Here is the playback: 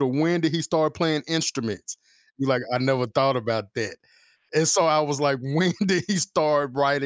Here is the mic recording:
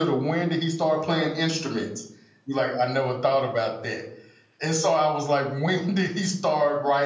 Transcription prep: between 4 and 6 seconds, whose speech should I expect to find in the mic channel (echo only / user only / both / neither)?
echo only